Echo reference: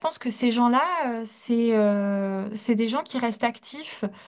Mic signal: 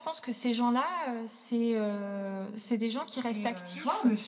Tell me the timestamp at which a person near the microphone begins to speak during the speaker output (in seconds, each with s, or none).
3.3 s